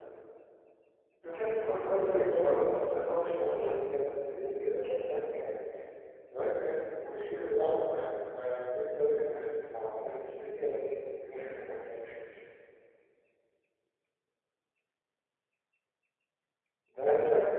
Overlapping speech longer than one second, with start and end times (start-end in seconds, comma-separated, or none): 1.7-4.0